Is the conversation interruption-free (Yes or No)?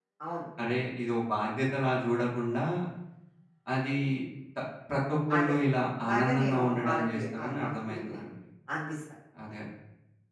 No